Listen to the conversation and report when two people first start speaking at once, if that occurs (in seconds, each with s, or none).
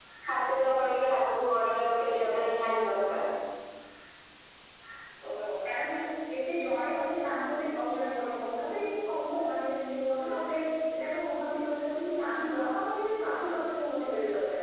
none